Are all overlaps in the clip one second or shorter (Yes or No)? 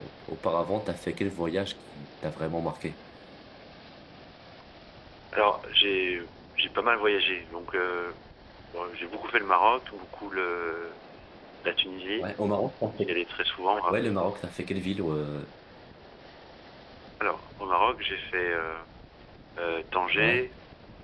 Yes